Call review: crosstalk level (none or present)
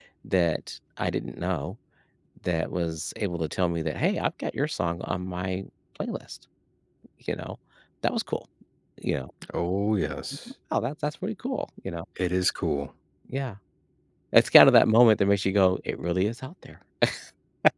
none